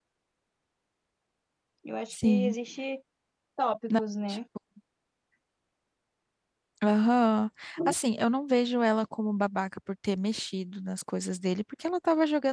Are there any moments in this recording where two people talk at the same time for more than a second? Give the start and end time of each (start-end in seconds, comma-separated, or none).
none